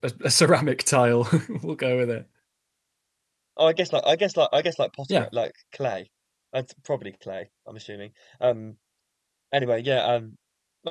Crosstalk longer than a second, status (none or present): none